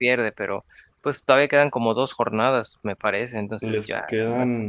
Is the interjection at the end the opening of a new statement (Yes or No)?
Yes